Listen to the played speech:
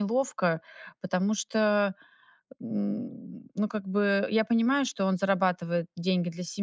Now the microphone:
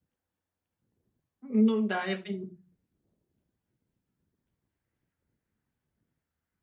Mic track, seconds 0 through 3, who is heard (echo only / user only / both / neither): user only